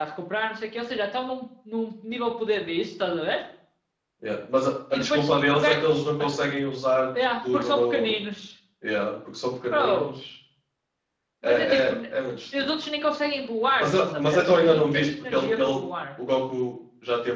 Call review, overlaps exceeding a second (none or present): present